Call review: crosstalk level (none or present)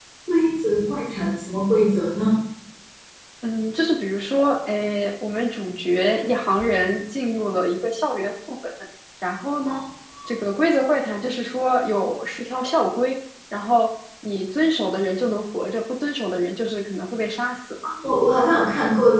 none